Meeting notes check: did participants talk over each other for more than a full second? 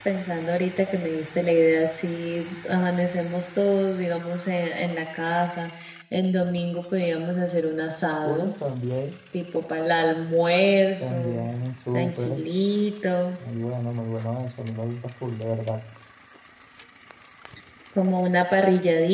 No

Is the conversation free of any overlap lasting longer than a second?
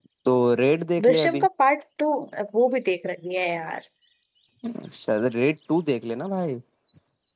Yes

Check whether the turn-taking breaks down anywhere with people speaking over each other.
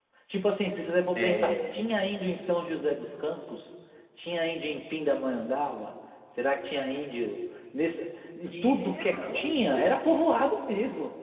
Yes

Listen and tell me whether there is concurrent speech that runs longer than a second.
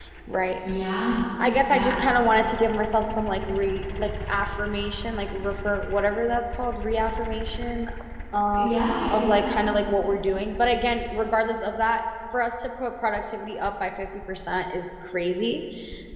No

